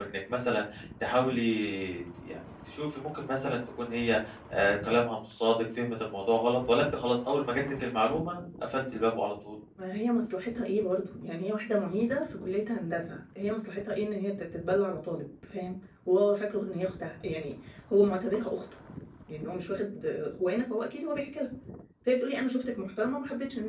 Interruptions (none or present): none